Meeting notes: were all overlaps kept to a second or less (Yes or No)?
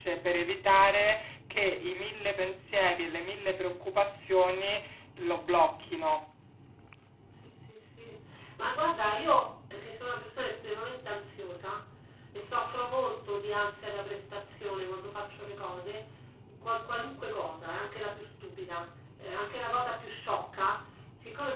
Yes